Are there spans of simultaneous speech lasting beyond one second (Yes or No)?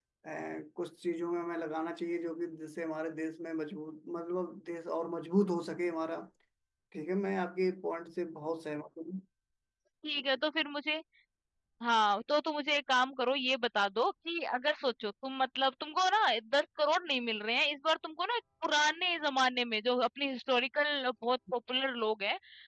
No